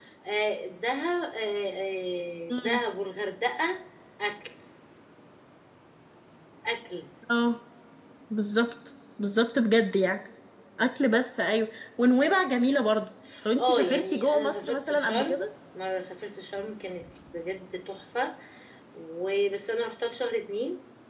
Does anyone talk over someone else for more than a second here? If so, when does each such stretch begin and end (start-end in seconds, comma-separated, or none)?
13.6-15.4